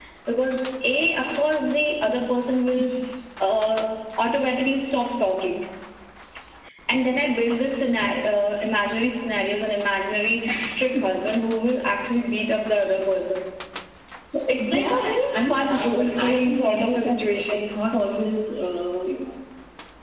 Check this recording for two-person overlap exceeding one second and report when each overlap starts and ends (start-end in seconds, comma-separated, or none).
14.7-17.7